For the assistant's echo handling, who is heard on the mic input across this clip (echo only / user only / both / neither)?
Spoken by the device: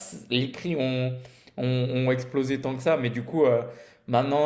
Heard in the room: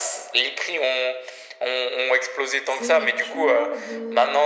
both